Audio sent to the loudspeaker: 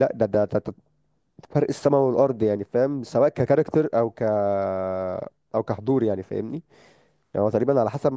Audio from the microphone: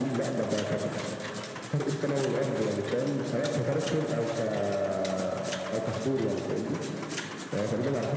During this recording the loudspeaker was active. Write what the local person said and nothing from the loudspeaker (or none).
none